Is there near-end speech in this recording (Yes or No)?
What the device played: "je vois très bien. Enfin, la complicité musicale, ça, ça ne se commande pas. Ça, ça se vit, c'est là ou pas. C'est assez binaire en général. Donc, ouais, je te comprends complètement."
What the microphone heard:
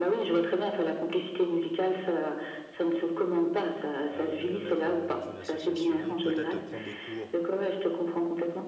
Yes